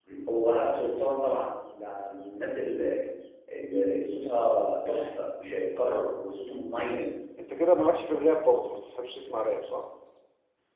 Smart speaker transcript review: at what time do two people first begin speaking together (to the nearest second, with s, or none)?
none